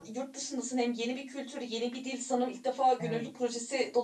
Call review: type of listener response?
listening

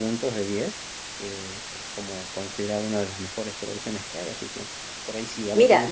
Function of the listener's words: taking over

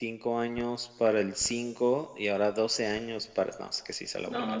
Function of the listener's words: taking over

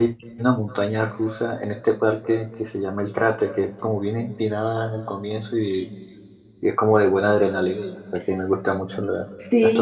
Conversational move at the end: taking over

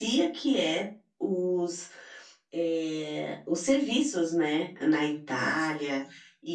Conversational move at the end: listening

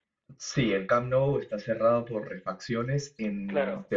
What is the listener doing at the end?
listening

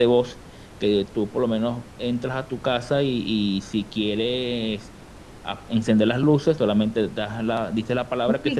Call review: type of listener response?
taking over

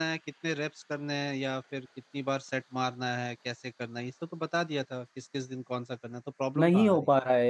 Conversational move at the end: taking over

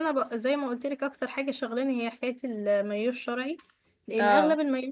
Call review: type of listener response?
listening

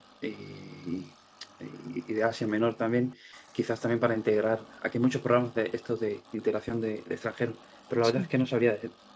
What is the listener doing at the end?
listening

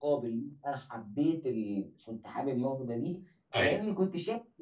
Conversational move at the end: listening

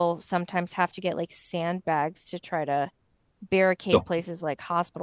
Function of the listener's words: listening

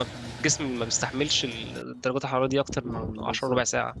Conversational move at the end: taking over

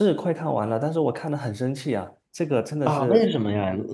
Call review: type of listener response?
taking over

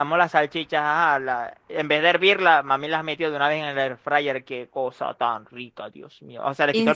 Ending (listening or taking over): listening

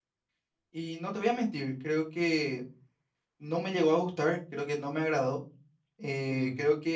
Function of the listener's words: listening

